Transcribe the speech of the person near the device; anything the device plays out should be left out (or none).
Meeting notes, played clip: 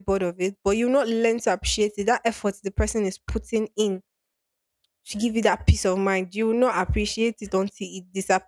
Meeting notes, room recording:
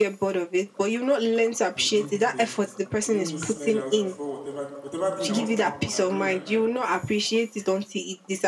I will end it first. So let me just slide out before whatever whatever thing that wants to happen and ruin my life